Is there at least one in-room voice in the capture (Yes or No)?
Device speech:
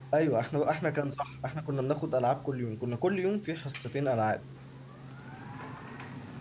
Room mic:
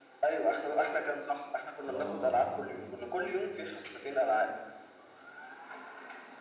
Yes